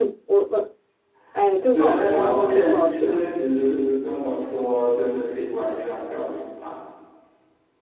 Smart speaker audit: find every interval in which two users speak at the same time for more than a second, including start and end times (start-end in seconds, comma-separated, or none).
1.7-3.2